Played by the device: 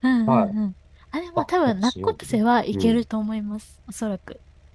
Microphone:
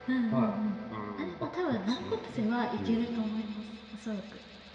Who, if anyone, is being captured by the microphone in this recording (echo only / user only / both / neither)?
both